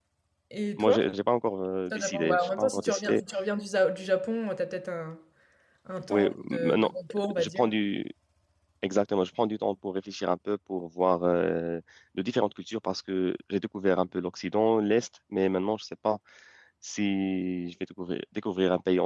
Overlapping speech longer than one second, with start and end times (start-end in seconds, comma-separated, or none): 1.9-3.2, 6.1-7.6